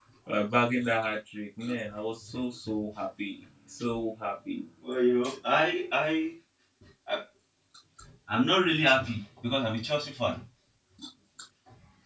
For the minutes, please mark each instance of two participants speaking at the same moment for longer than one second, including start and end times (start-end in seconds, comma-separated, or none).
none